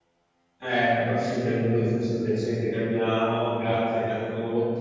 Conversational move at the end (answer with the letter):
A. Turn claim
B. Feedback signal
B